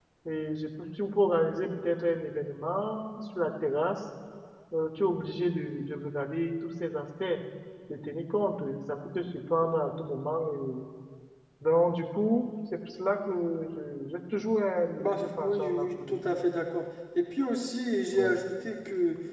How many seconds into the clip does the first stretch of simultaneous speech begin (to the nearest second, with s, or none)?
15 s